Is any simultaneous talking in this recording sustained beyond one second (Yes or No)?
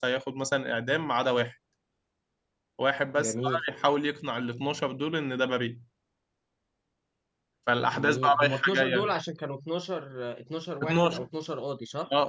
Yes